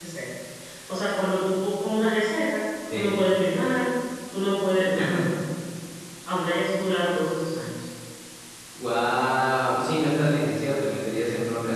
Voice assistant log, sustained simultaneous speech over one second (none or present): none